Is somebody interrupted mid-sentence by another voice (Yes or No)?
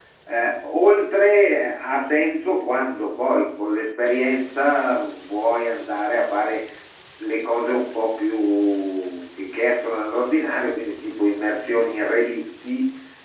No